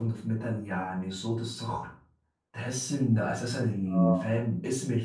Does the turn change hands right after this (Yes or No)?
No